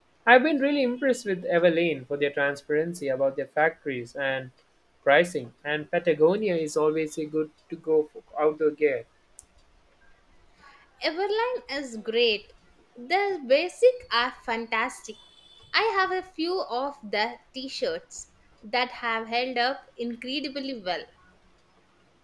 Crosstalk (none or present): none